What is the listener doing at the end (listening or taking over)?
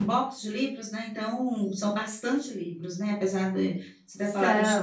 listening